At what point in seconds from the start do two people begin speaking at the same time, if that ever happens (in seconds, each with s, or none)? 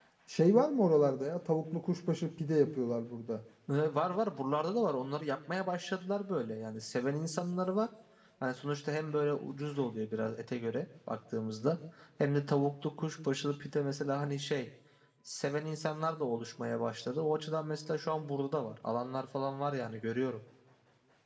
none